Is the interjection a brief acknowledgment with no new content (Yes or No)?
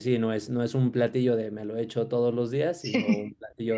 Yes